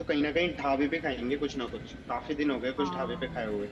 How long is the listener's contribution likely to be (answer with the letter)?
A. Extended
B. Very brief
A